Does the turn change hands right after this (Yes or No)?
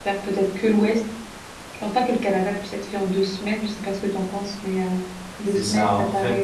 Yes